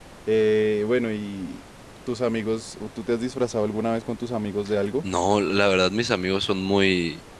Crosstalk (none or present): none